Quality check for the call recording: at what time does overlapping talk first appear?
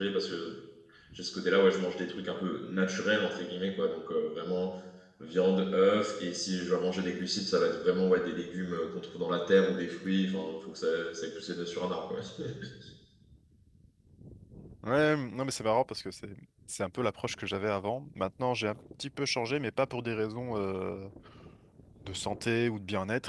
none

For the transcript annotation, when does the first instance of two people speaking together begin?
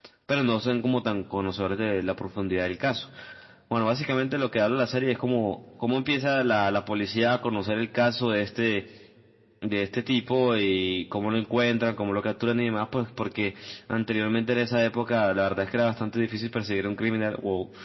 none

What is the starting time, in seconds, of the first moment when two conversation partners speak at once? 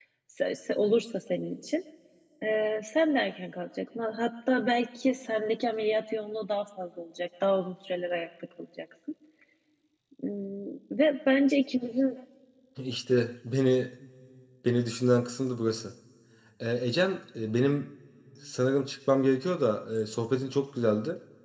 none

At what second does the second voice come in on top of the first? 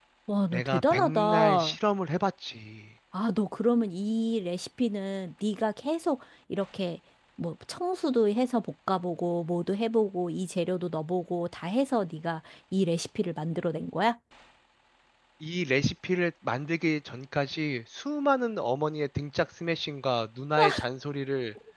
0.5 s

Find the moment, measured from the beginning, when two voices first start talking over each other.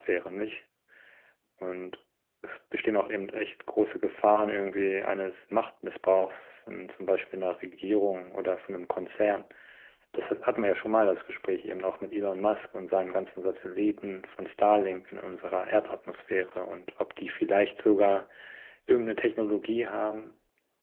none

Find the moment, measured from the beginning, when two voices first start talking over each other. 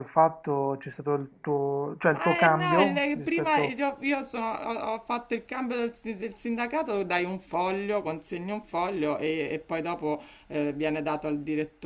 2.1 s

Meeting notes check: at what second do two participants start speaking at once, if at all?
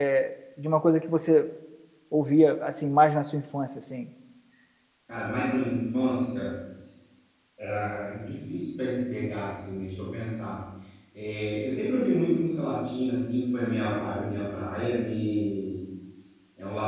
none

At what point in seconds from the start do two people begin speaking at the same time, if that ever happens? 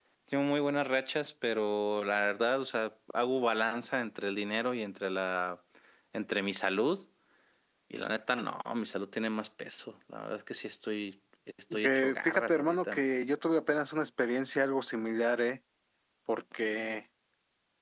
11.8 s

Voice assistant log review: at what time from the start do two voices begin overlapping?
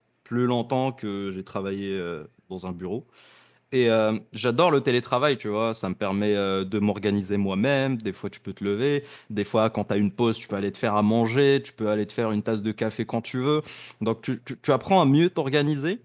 none

